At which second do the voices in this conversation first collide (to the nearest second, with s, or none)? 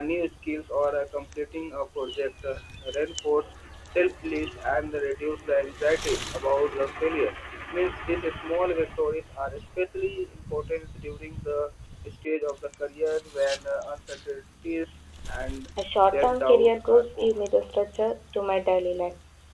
16 s